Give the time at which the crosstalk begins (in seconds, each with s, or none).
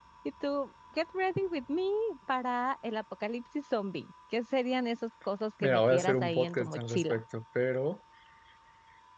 5.6 s